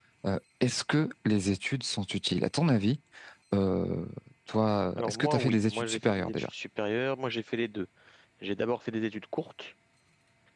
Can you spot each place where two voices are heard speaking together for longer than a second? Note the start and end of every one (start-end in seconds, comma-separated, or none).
5.0-6.5